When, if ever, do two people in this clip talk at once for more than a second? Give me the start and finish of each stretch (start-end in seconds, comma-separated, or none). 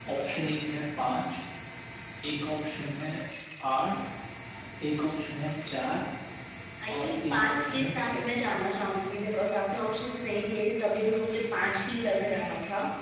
7.0-8.2